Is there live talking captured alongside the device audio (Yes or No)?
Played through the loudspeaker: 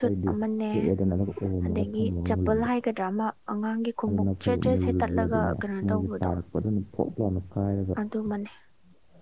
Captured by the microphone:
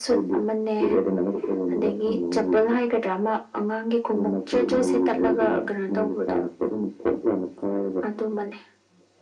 No